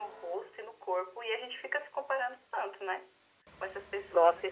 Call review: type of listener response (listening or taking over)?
taking over